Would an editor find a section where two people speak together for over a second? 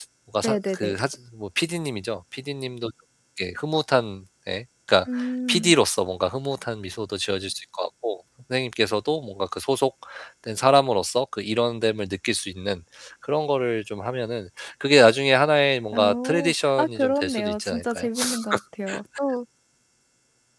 Yes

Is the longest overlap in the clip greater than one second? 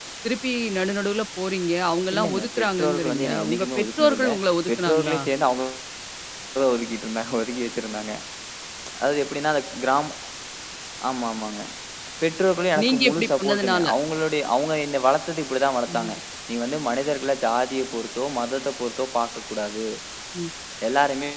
Yes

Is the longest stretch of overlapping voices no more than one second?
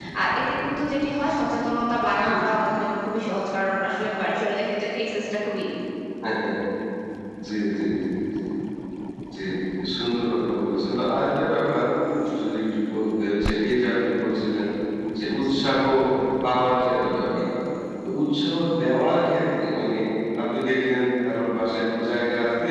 Yes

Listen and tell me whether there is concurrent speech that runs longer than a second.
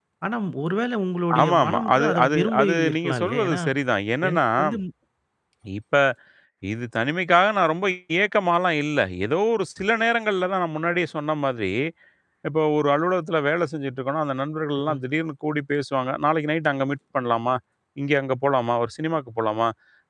Yes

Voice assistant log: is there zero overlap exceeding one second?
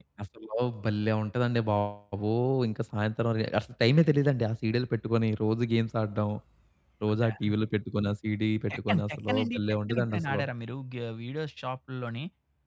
No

